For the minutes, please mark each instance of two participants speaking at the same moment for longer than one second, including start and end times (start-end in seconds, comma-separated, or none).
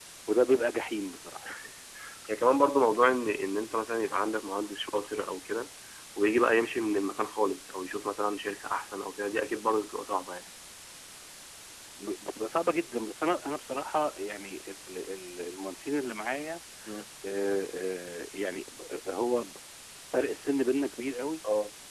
none